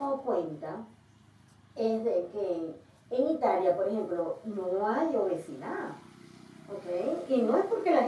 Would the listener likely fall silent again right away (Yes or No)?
Yes